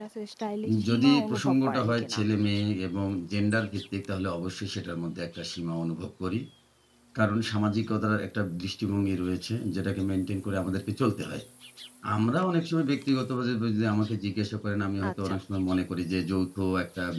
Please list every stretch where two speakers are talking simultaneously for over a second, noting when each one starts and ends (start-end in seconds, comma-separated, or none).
0.9-2.2